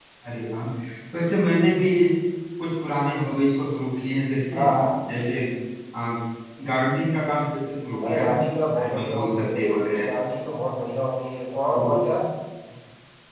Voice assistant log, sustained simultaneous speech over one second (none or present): present